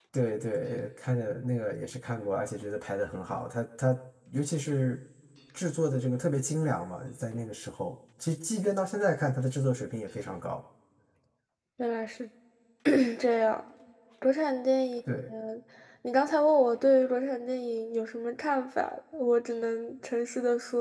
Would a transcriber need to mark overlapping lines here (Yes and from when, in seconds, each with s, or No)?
No